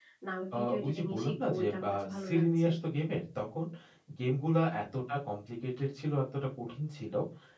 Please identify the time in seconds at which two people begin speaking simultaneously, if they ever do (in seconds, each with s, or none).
0.5 s